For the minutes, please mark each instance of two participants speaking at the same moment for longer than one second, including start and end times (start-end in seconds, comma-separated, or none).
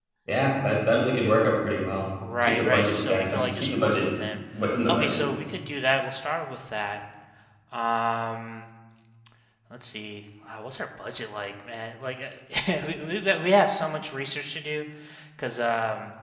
2.4-4.1